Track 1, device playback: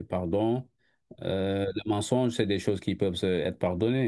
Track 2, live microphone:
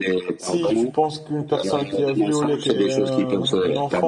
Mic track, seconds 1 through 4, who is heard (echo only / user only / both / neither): both